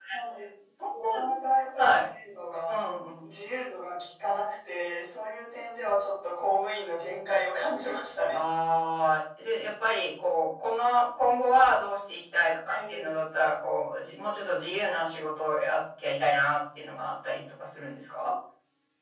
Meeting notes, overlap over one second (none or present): none